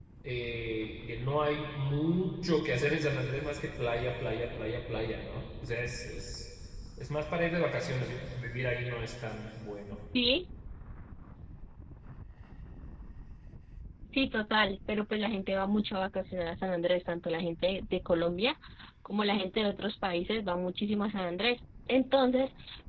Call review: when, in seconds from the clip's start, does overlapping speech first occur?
none

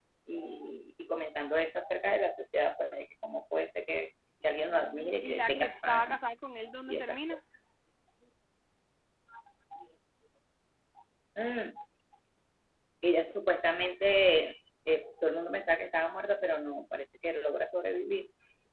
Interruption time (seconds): 5 s

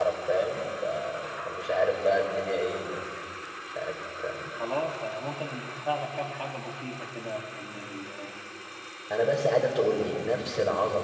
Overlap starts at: none

